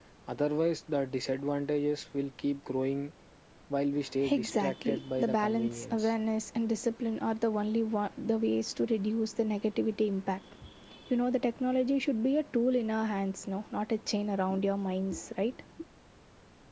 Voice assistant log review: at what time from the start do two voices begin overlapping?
4.3 s

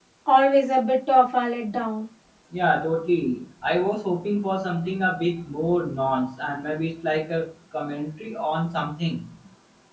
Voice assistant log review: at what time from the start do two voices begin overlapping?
none

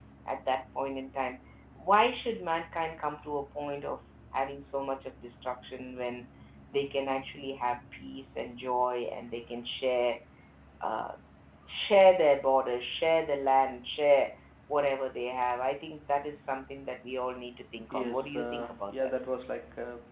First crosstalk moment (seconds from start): 17.8 s

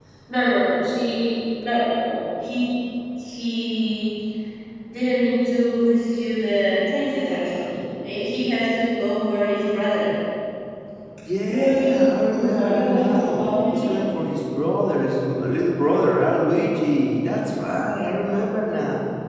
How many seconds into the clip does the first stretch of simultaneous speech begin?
11.5 s

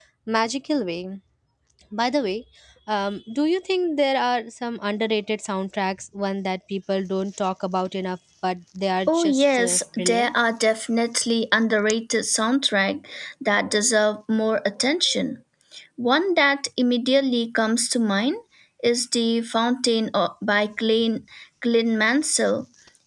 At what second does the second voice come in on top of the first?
9.1 s

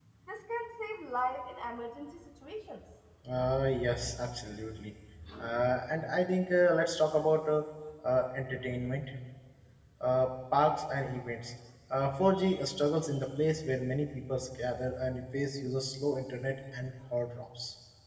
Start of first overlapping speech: none

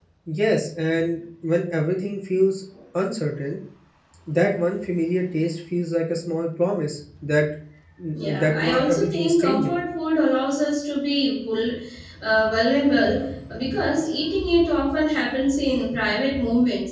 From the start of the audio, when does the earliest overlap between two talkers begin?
8.4 s

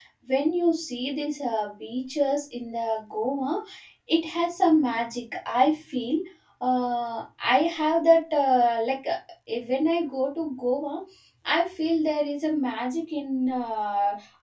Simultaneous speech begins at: none

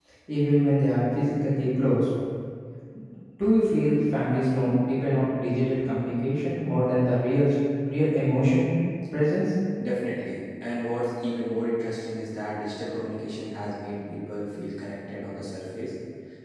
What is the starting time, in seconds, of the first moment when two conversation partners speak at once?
none

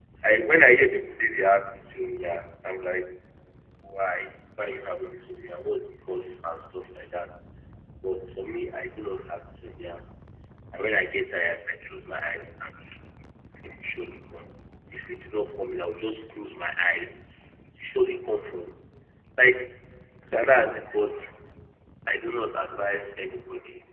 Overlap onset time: none

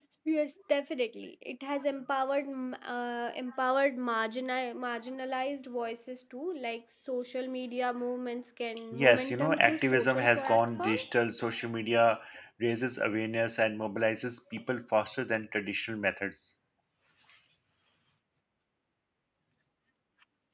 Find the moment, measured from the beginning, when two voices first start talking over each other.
8.9 s

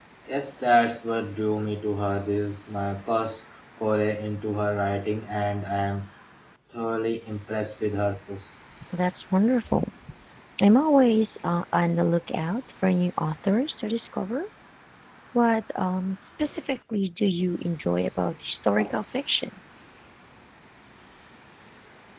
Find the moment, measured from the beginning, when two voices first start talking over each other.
none

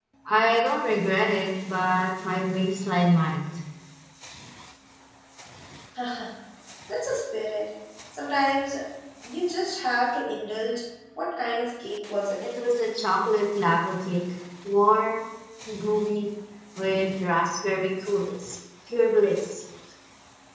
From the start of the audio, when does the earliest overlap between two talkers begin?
none

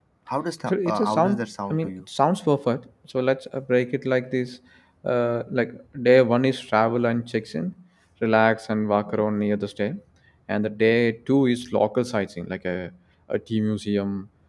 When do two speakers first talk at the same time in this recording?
0.6 s

